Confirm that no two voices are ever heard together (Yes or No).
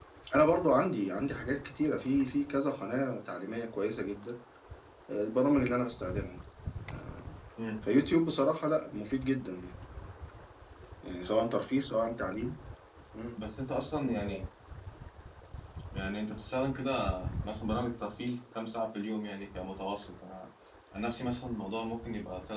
Yes